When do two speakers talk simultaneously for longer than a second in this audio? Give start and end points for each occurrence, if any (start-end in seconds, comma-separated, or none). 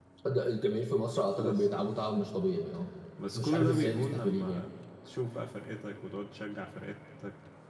3.4-4.6